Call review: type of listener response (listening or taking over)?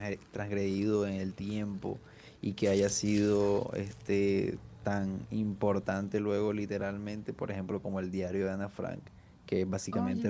listening